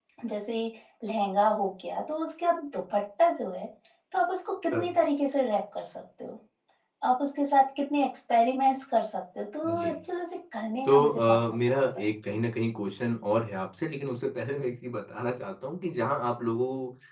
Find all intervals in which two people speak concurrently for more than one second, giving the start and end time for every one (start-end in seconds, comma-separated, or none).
10.8-12.1